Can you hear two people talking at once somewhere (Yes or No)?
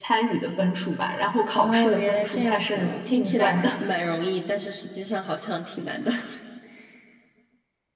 Yes